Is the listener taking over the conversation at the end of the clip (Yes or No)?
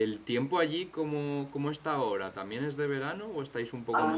Yes